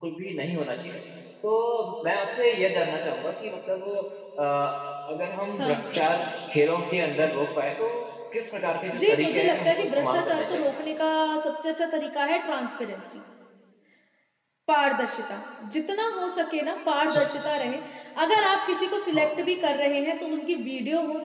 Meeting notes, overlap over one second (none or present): present